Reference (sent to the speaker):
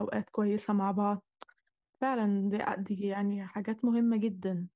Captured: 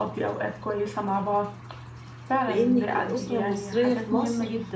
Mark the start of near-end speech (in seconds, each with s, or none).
2.4 s